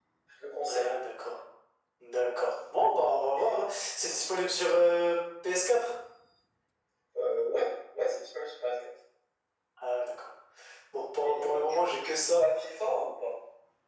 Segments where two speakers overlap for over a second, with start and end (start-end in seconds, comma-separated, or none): 11.2-12.4